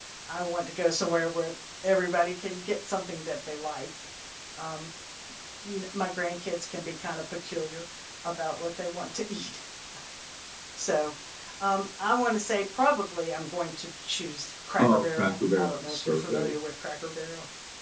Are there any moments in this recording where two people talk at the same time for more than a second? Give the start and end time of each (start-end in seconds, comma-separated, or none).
14.8-16.5